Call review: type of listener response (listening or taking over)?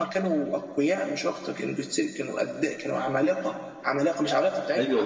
taking over